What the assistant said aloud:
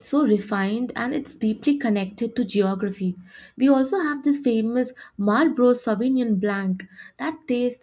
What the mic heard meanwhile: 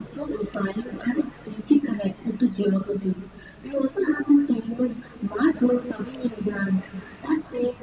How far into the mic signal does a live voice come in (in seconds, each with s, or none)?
none